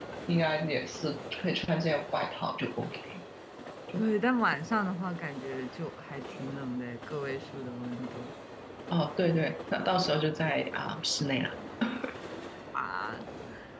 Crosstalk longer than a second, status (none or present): none